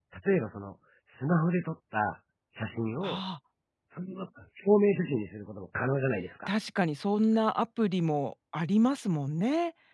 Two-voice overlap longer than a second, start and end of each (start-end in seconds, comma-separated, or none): none